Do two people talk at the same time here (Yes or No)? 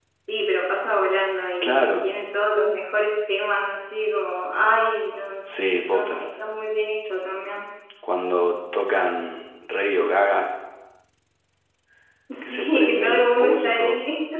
Yes